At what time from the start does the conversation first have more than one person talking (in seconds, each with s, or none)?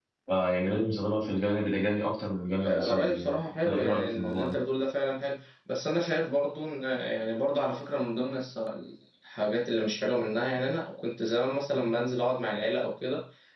2.6 s